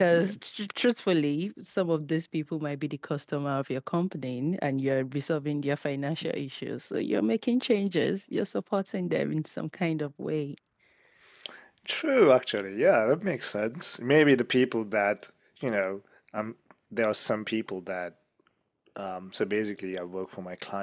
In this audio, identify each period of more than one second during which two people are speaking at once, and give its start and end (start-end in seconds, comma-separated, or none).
none